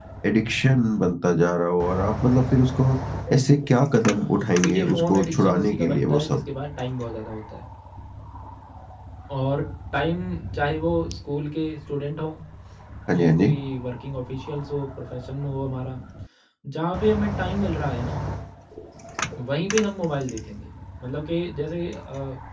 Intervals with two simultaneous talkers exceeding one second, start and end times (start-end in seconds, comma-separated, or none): 4.6-6.4